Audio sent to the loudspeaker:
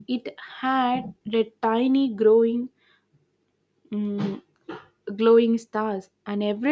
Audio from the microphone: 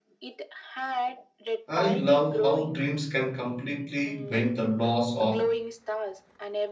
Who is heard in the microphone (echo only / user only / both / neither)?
both